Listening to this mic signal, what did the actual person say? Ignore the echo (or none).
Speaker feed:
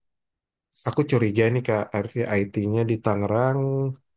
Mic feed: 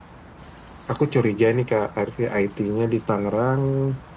none